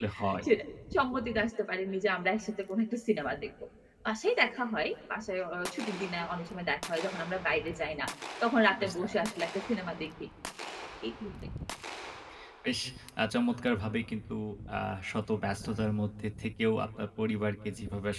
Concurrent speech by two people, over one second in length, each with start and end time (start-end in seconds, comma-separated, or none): none